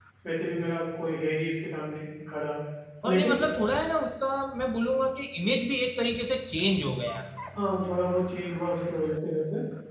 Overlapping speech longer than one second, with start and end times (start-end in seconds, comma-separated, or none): none